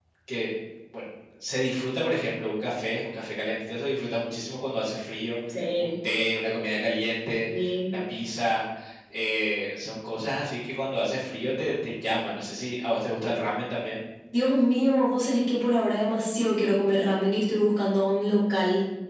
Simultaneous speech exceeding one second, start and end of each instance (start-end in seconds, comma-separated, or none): none